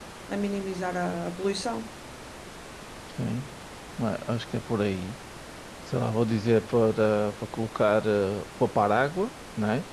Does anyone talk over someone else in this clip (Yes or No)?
No